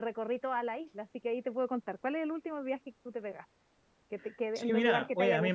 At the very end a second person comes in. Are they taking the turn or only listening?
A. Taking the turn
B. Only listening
A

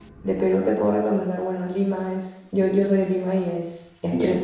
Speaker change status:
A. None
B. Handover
A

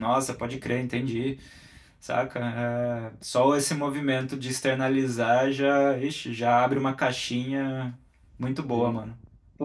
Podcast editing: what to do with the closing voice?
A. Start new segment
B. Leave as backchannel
A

